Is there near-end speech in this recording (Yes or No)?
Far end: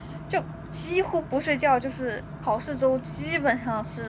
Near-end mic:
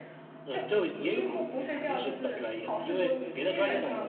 Yes